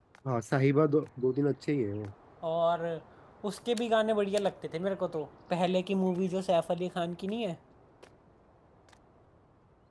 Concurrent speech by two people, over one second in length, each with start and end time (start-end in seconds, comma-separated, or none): none